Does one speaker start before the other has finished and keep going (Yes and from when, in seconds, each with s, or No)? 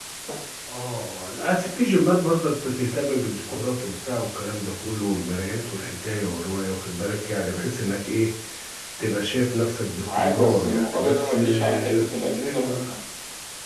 Yes, from 10.0 s